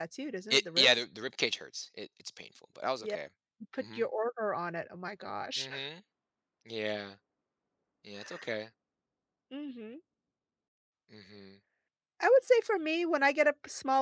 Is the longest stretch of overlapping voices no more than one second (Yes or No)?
Yes